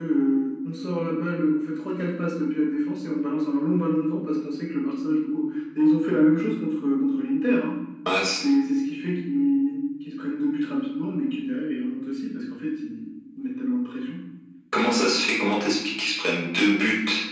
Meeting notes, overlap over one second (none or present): none